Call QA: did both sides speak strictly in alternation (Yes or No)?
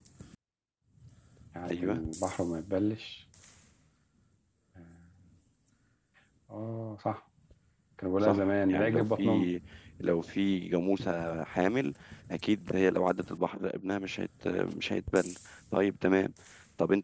No